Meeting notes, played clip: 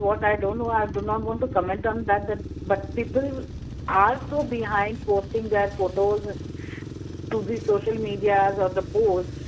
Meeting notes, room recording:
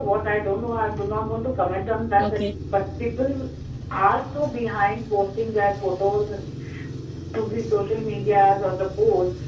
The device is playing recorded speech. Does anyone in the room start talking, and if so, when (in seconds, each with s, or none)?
2.2 s